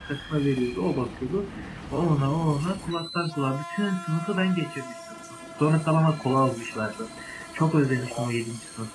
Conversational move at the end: listening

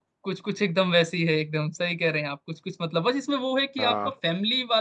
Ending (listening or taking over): listening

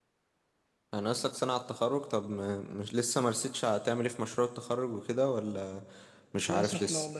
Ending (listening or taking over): taking over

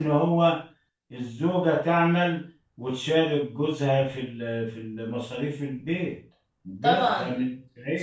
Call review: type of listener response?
taking over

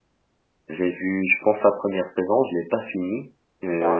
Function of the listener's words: listening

